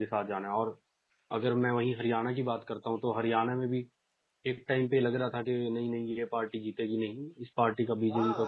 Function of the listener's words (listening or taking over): taking over